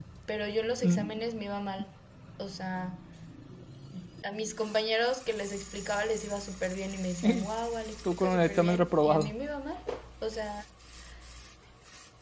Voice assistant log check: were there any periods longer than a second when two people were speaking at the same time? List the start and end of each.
8.1-9.3

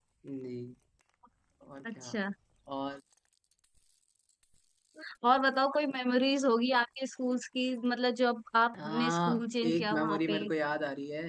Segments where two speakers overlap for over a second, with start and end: 8.7-10.4

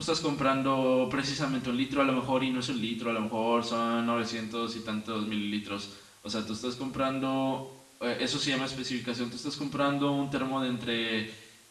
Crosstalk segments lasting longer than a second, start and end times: none

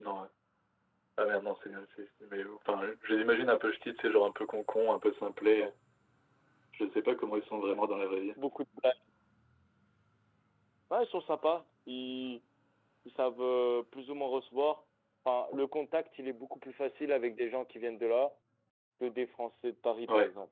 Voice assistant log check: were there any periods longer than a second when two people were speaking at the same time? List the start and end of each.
none

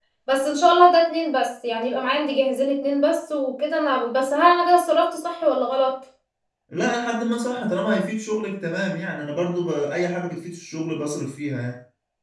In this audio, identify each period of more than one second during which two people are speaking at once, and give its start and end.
none

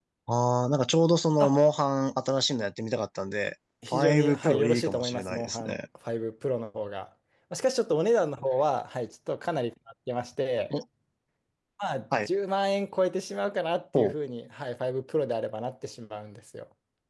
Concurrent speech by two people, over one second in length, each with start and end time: 3.9-5.8

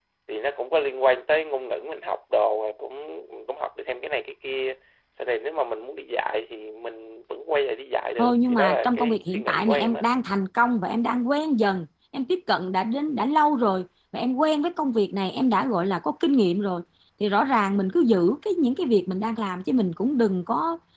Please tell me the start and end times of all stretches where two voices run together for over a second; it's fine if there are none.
8.2-10.0

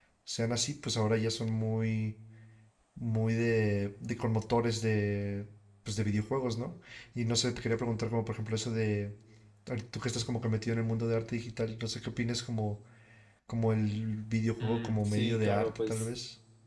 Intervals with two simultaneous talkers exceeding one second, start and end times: 14.6-16.1

